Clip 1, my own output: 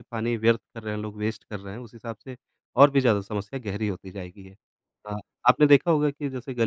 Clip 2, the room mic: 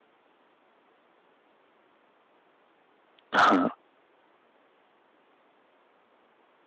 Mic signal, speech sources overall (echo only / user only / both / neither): user only